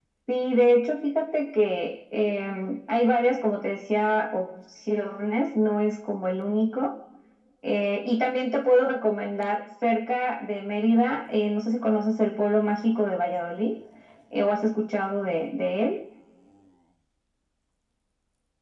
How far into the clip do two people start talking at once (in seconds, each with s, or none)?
none